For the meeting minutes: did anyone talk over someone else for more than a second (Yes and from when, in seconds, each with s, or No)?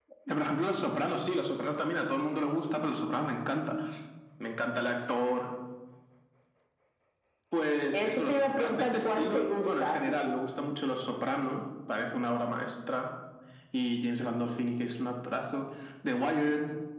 Yes, from 7.9 s